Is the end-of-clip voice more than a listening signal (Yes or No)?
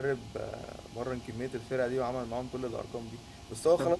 No